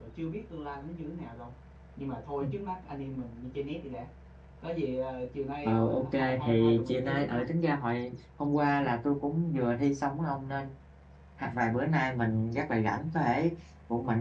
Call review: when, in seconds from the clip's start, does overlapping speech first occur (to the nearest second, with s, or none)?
6 s